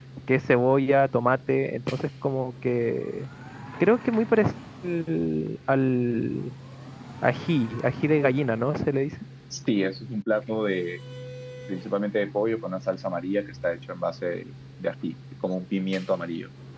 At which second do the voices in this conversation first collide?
none

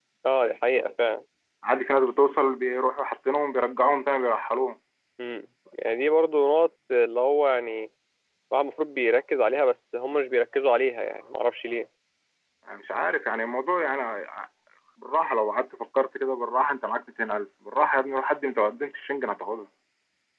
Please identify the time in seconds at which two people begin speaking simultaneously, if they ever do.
none

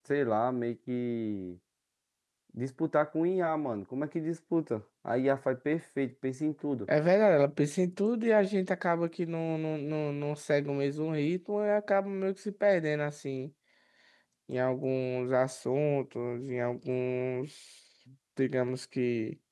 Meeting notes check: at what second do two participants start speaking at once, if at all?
none

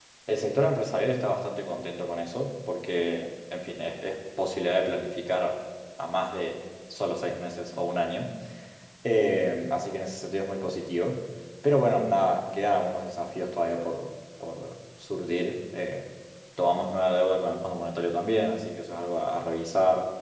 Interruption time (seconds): none

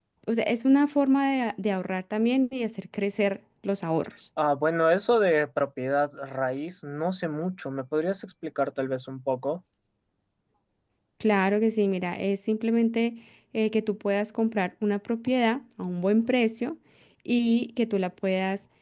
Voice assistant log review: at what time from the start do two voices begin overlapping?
none

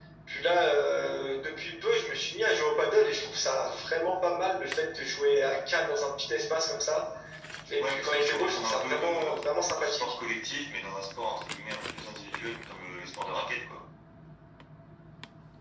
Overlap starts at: 7.8 s

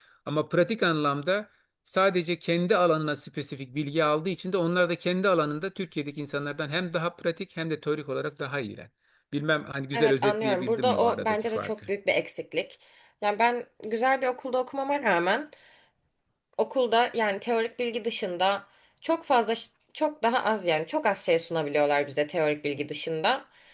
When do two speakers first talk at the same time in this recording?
9.9 s

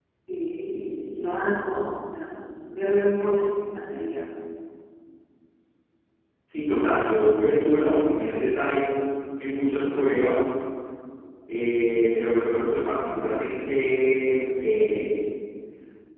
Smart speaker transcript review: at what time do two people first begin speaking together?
none

